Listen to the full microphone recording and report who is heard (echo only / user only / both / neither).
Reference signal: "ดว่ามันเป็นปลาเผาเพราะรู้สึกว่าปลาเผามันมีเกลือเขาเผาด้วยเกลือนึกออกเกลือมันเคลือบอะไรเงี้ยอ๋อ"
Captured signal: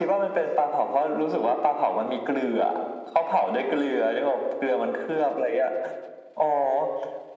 echo only